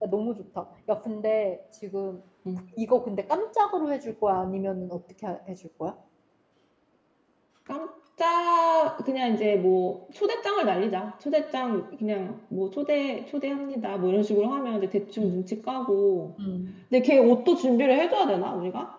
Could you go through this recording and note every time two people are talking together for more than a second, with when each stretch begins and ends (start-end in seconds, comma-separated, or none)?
none